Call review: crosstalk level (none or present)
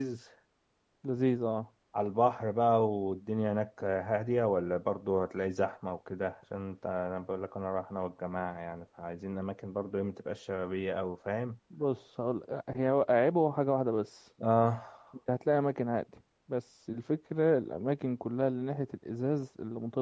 none